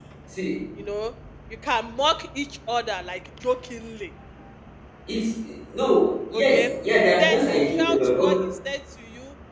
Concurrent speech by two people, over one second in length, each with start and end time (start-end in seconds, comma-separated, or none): 7.2-8.5